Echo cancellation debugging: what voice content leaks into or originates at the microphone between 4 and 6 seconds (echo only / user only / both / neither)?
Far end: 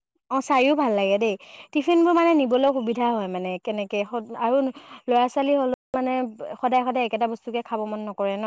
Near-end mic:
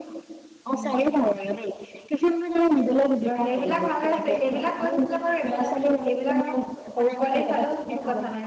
both